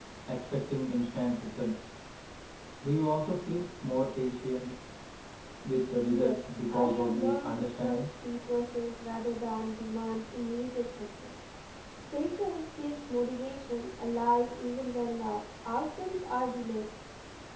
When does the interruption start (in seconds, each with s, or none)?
6.1 s